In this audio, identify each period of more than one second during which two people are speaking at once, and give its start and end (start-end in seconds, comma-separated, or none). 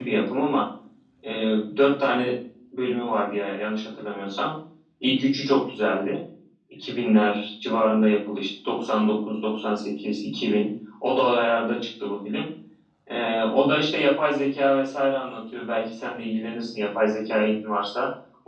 none